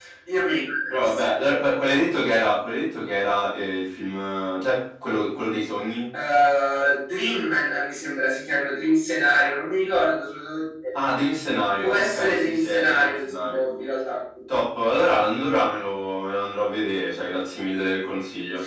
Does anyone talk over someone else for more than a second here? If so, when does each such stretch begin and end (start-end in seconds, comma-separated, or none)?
11.8-13.6